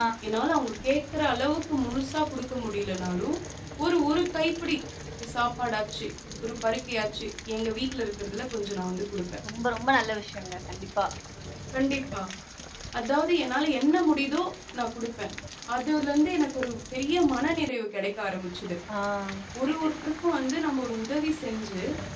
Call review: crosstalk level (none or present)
none